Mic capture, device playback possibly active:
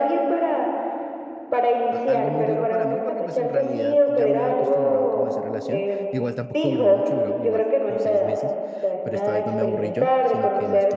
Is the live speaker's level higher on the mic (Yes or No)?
No